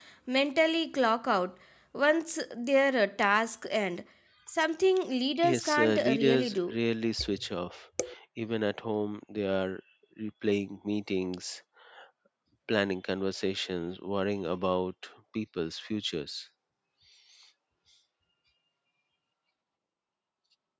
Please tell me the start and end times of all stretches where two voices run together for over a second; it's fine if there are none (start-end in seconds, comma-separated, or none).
5.4-6.8